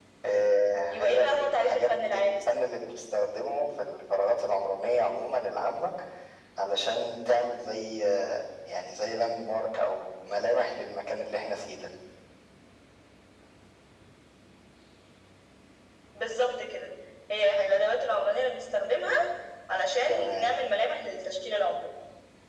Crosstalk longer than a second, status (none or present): present